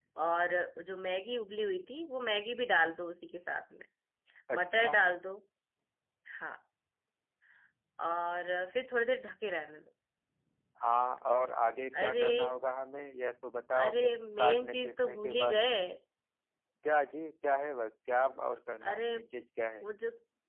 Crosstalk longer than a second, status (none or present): present